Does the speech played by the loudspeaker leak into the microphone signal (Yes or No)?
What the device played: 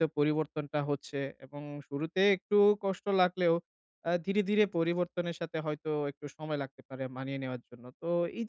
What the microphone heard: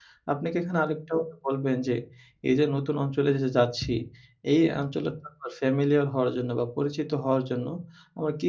No